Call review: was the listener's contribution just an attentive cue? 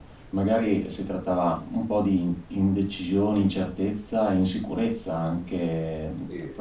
Yes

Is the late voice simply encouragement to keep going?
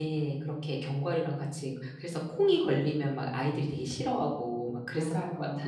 No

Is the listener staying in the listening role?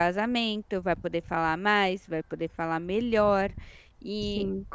Yes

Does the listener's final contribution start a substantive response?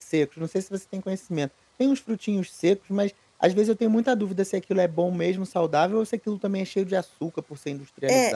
Yes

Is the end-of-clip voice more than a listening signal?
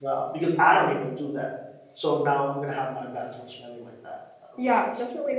Yes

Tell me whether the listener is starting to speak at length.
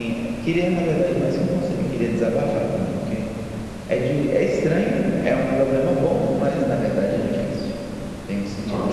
Yes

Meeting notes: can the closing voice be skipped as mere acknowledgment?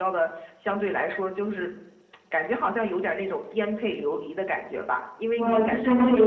No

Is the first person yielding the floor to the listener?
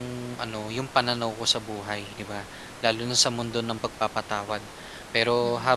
No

